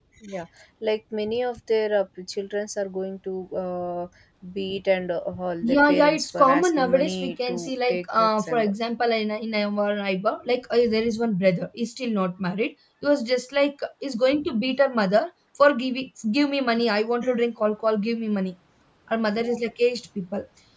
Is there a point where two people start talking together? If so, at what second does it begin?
6 s

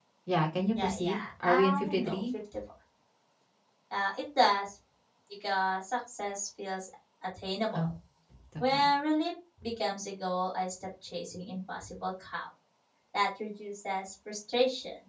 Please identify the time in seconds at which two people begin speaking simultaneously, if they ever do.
1 s

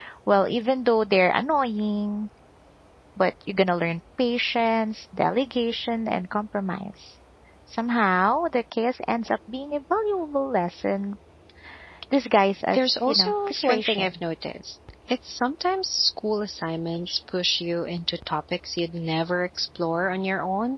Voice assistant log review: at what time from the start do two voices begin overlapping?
13 s

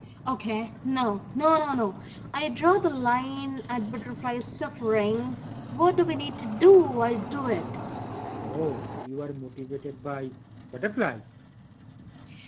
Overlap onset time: none

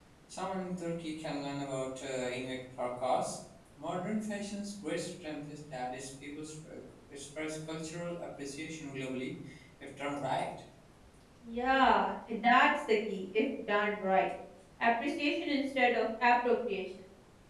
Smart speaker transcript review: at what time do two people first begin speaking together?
none

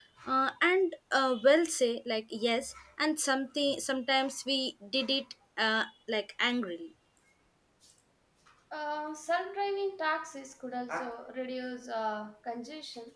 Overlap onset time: none

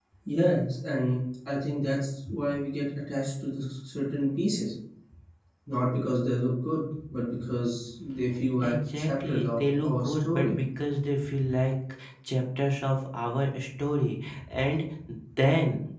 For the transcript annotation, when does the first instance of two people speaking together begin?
9 s

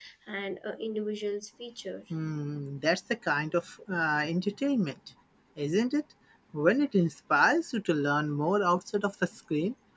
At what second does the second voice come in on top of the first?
none

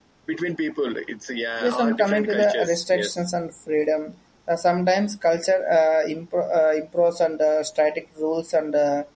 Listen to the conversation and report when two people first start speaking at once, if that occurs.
2 s

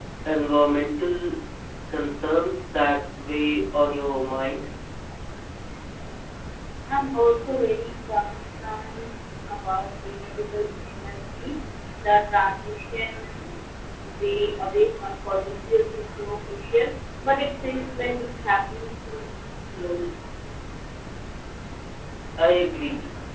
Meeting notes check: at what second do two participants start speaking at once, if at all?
none

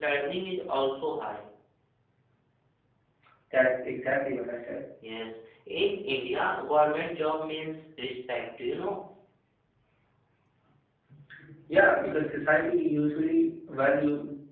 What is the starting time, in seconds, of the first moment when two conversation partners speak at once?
none

